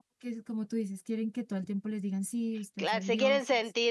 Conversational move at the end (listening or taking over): taking over